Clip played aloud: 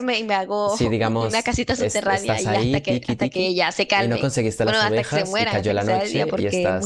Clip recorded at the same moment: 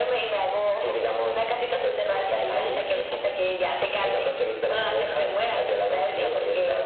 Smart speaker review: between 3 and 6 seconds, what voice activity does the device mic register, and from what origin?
echo only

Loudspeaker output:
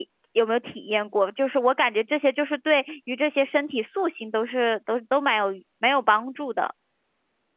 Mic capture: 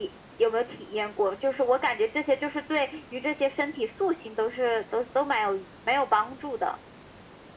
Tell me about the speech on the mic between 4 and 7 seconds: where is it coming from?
echo only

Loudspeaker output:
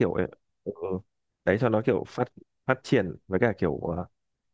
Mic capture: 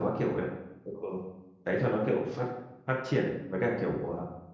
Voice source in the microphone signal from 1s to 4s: echo only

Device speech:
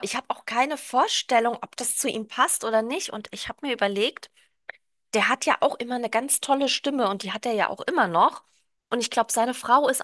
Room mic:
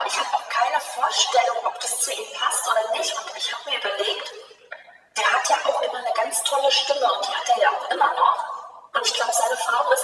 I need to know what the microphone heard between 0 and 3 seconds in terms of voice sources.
echo only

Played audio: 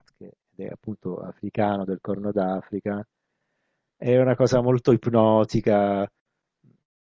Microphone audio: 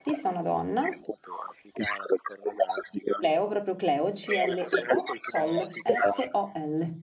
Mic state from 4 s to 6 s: both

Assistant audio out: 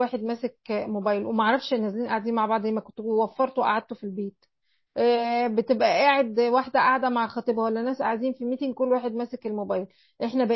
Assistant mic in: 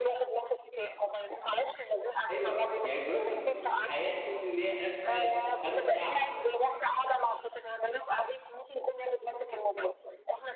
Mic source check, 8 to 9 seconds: echo only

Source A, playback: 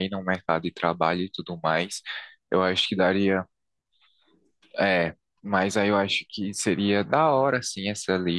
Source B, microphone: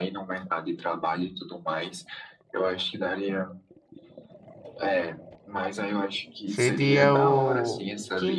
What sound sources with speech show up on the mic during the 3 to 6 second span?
echo only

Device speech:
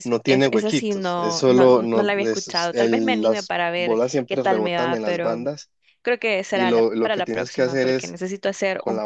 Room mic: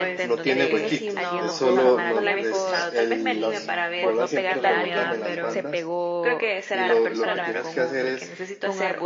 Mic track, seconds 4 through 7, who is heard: both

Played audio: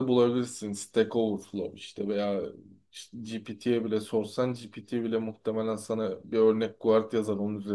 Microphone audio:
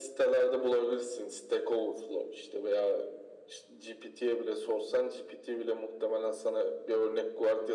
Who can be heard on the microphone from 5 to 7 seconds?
echo only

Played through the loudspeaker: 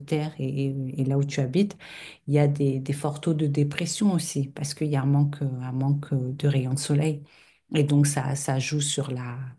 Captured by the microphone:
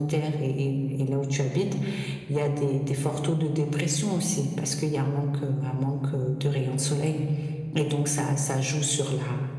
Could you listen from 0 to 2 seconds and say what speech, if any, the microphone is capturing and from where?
echo only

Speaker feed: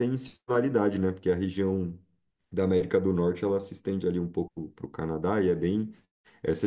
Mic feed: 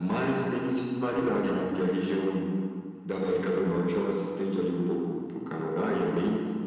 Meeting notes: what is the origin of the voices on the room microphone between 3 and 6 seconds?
echo only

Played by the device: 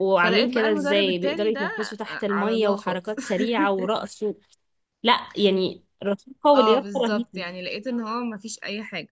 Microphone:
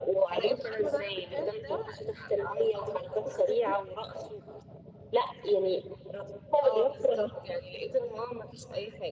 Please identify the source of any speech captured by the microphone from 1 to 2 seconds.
echo only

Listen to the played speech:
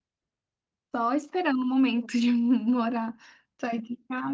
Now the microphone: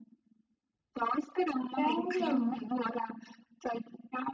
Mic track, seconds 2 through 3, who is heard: both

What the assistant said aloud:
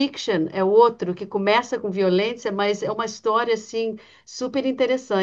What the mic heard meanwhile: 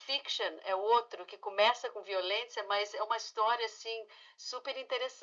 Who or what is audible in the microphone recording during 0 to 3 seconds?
echo only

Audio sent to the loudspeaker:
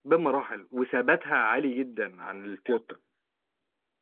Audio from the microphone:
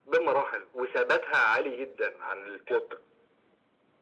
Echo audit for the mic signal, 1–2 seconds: echo only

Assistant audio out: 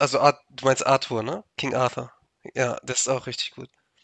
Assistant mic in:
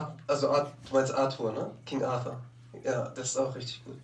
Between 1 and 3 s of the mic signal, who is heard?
echo only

